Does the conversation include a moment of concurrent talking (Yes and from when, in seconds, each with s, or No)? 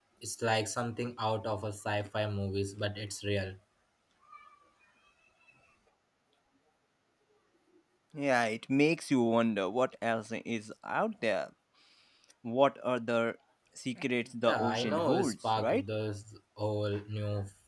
Yes, from 14.5 s